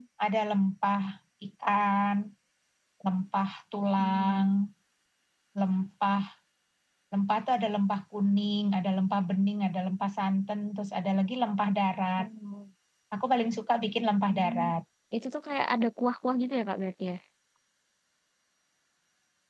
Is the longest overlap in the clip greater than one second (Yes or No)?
No